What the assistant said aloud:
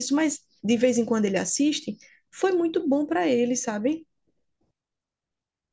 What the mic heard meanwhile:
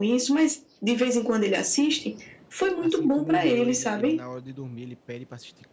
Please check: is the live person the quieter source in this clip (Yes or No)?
Yes